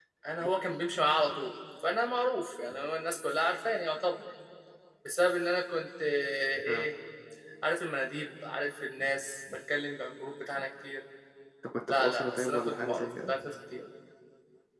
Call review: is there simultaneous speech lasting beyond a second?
Yes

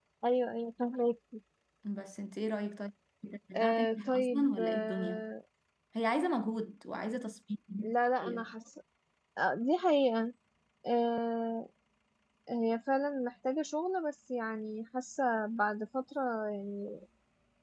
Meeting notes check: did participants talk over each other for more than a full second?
Yes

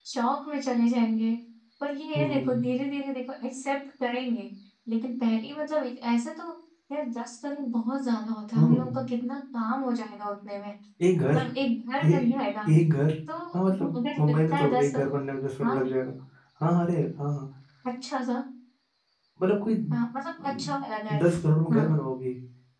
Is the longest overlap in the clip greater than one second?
Yes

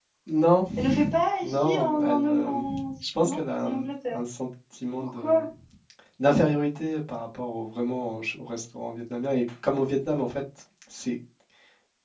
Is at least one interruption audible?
Yes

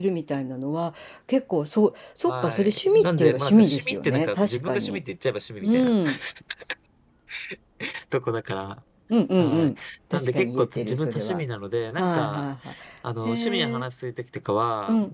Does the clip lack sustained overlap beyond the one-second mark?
No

